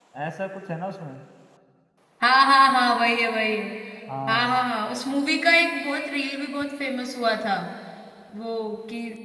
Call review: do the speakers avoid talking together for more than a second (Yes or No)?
Yes